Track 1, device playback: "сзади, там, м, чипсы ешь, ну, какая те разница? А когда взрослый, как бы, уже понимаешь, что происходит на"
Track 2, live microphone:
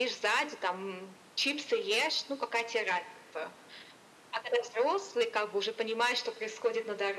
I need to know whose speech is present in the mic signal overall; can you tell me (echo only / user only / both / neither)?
echo only